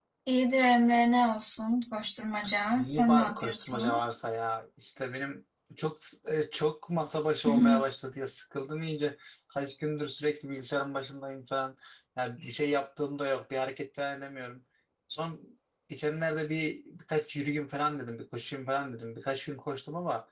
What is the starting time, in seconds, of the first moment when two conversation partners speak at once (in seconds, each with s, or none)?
2.7 s